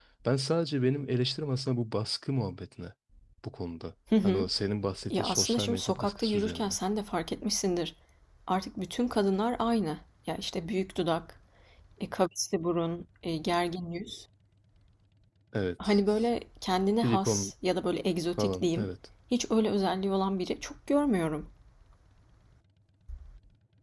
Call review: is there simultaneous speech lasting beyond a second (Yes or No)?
Yes